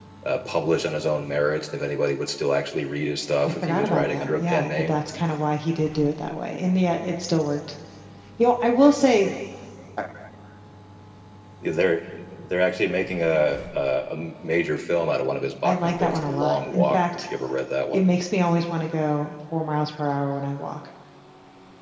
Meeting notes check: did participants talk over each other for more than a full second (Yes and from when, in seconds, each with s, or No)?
Yes, from 3.4 s